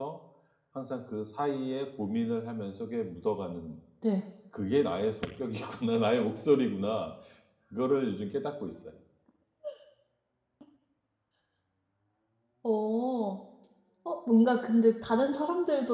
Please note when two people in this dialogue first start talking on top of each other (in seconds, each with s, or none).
none